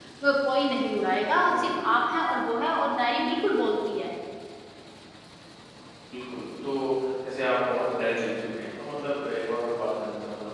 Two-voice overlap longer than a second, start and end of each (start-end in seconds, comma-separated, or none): none